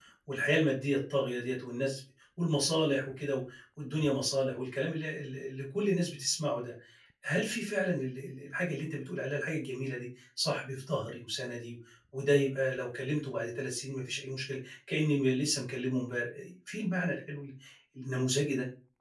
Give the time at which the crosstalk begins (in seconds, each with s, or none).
none